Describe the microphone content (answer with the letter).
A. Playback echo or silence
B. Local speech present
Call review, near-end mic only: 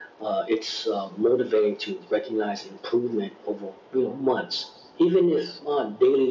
A